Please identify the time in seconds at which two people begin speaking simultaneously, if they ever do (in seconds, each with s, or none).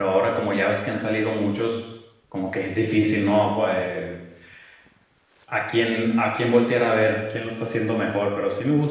none